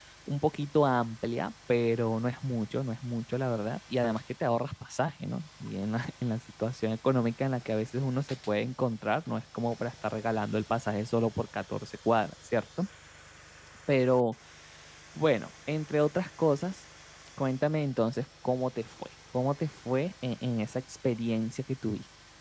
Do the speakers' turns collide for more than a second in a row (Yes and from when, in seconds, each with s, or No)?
No